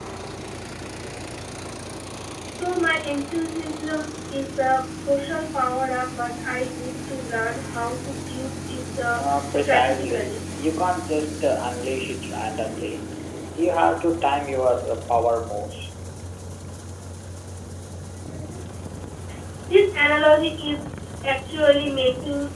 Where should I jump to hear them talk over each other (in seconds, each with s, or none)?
9.1 s